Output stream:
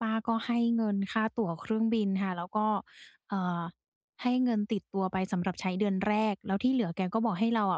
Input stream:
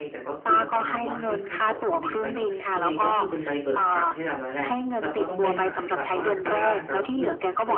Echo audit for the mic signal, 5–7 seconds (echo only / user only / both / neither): both